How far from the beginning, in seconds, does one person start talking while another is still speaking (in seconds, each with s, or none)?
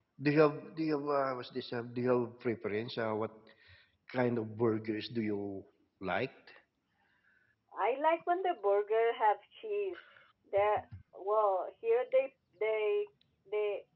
none